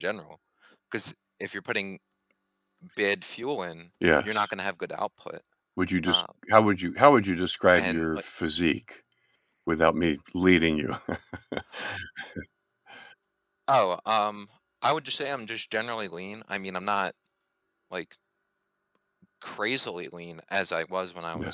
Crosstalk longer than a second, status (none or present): none